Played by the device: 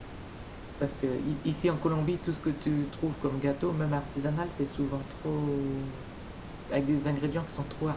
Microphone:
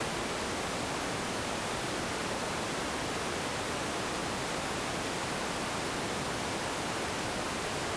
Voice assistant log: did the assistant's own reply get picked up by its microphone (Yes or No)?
No